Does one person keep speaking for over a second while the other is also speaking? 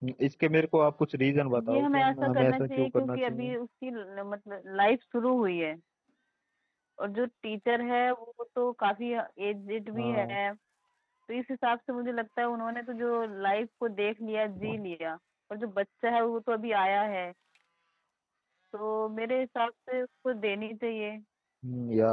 Yes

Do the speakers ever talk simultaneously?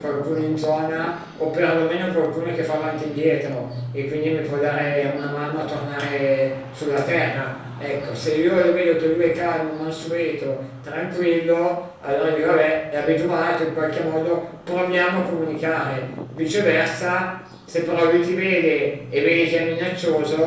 No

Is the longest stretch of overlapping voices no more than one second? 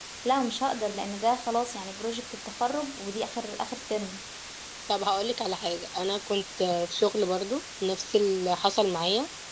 Yes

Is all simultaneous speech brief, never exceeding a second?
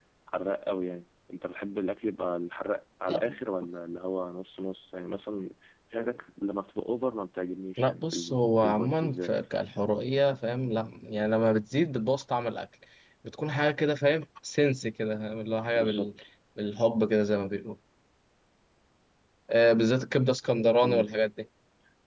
No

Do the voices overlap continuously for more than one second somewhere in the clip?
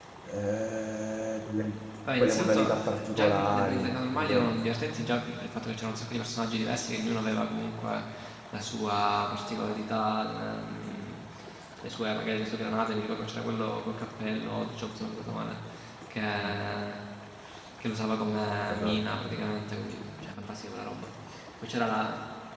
Yes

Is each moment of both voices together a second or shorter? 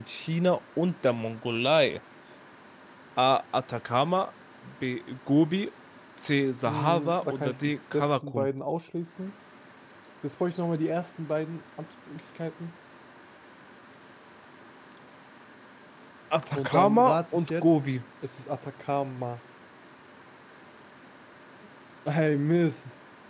No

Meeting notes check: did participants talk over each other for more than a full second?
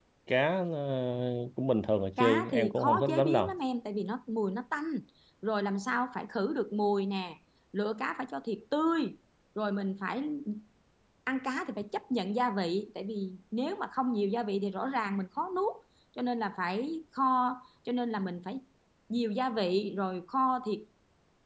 Yes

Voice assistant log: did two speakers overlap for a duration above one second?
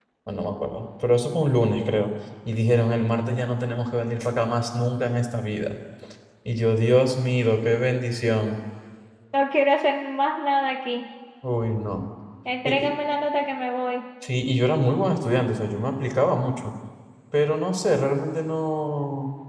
No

